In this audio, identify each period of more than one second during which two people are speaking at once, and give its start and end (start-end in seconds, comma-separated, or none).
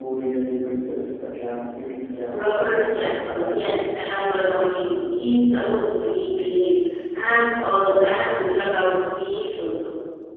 2.3-3.8